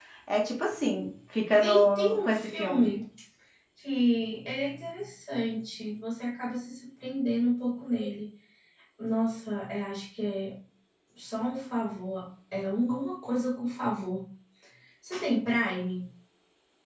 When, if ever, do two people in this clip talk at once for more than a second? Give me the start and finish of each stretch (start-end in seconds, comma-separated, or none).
1.6-2.9